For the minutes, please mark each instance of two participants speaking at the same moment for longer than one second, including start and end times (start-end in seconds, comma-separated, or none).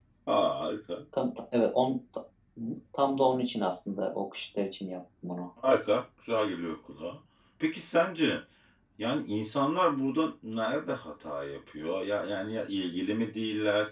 none